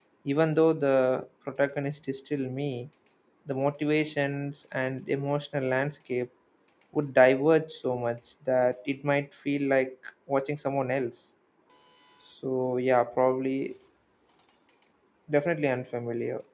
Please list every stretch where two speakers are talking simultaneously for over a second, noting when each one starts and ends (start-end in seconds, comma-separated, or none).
none